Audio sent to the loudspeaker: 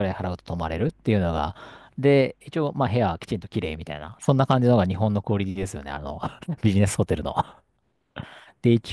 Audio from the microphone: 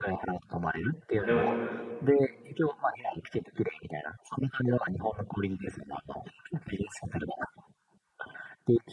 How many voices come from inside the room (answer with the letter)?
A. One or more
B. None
A